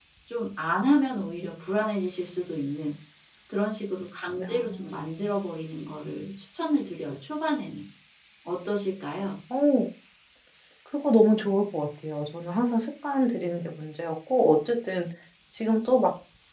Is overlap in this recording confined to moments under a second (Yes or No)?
Yes